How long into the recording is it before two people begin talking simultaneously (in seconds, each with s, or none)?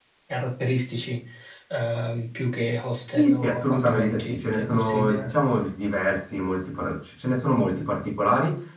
3.1 s